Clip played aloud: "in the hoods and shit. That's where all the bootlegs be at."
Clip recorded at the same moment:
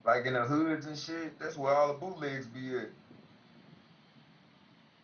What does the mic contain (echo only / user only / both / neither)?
echo only